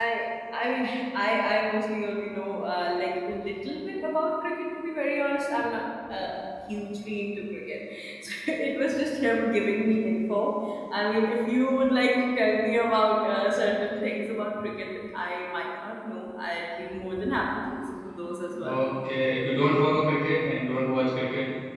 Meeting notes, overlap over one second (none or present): none